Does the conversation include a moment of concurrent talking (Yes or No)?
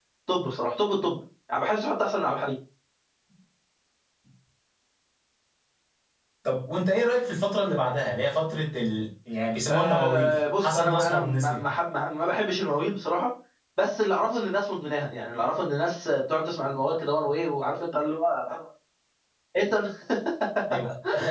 Yes